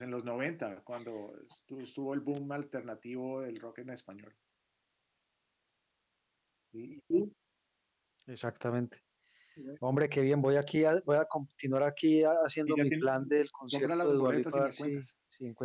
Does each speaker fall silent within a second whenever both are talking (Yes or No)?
No